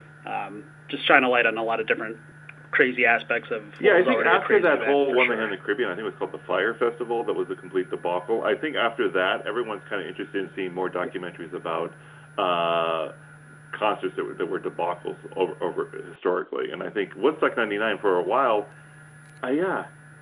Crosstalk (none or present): present